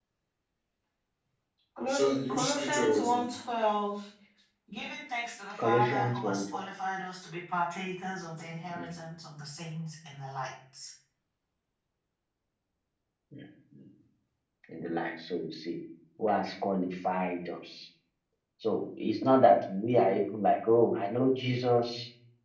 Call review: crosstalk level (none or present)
present